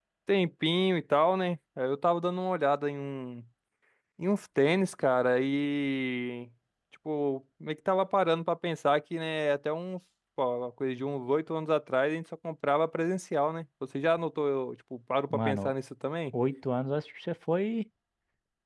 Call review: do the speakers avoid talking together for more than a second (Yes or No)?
Yes